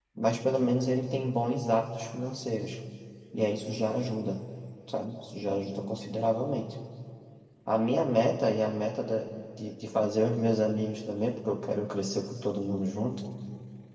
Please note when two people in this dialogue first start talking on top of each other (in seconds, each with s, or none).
none